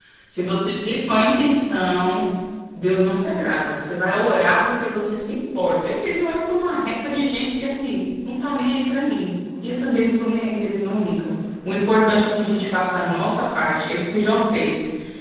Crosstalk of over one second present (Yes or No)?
No